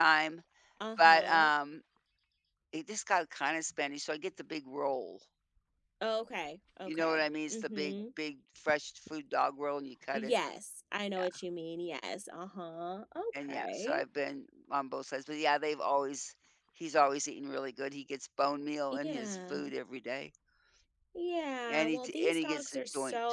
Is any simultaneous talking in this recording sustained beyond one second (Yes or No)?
Yes